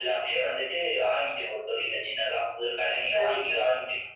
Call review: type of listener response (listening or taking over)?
listening